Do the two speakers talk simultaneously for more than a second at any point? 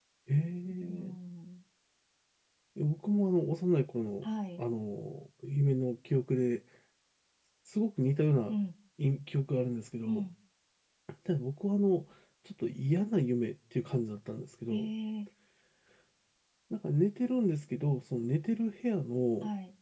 No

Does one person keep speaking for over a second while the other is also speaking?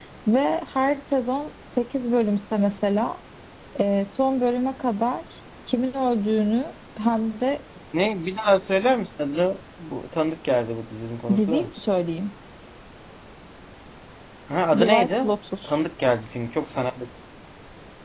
No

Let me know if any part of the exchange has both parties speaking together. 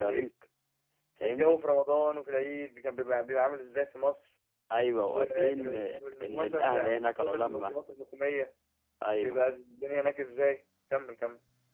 Yes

